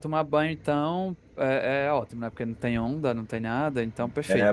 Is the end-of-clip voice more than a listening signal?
Yes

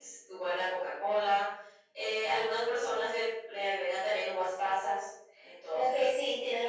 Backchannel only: No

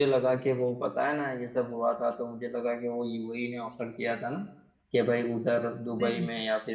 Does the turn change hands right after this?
No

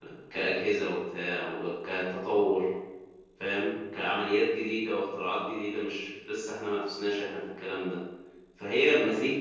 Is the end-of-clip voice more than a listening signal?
No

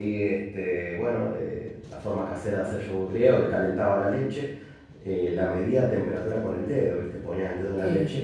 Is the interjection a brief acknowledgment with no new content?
Yes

